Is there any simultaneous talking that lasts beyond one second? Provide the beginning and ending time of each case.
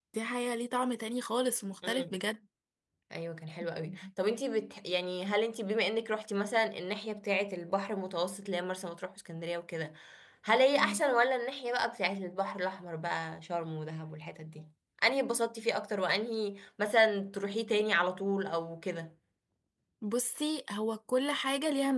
none

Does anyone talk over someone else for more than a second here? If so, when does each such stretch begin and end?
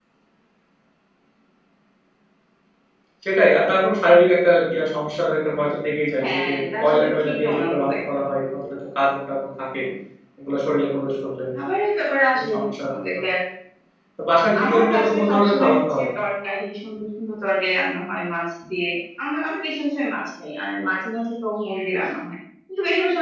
6.2-8.2, 14.6-16.1

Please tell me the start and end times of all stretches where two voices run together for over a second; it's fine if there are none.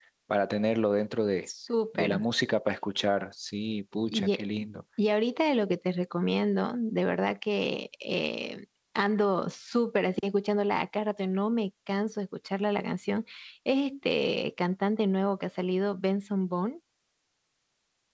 none

